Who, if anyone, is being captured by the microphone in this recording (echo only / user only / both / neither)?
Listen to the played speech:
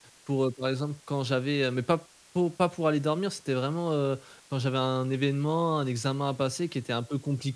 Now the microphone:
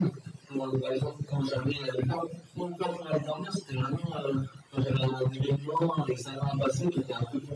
echo only